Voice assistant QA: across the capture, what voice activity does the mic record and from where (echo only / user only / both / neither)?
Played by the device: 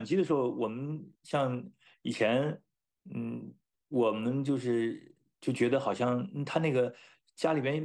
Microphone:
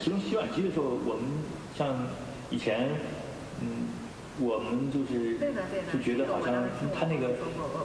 both